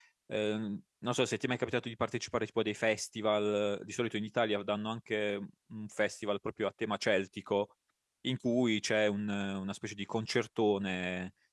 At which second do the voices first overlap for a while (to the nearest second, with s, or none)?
none